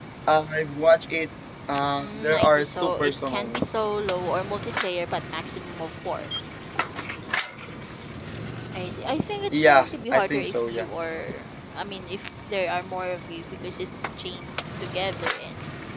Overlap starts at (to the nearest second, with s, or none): 2 s